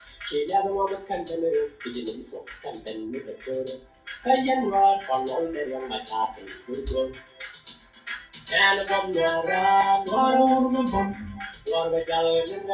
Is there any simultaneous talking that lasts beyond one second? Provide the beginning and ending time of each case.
none

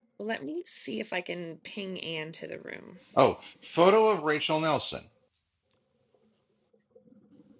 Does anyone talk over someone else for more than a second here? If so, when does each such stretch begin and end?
none

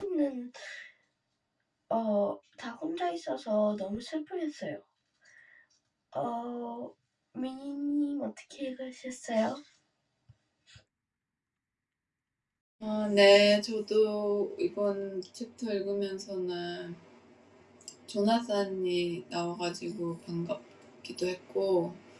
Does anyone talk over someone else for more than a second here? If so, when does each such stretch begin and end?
none

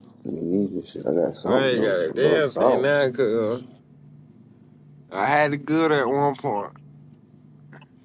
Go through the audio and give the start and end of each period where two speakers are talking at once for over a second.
1.4-2.9

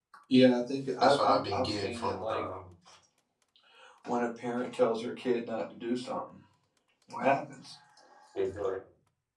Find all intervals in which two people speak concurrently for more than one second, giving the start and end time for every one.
1.0-2.4

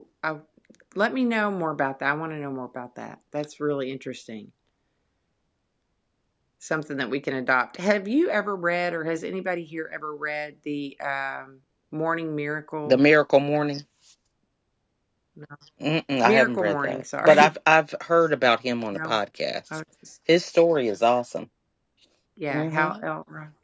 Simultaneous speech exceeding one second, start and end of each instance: 16.2-17.5

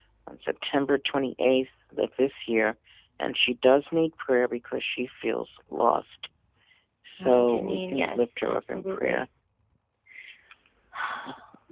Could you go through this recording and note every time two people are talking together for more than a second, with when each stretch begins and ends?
7.2-9.2

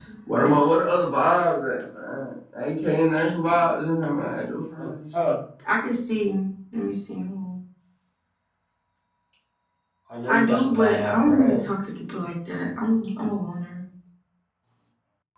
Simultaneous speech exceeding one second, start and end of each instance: 10.3-11.6

